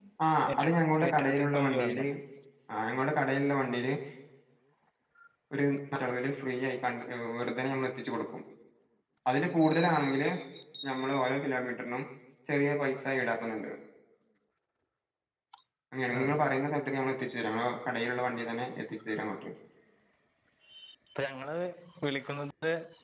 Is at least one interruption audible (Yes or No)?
Yes